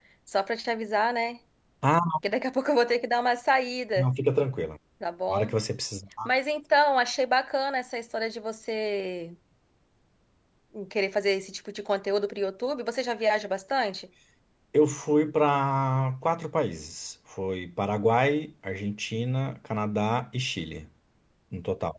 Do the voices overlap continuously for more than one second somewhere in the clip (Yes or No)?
No